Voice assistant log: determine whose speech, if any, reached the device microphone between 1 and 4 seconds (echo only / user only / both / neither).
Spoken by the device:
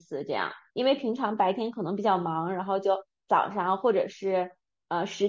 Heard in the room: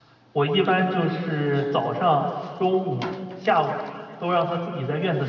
user only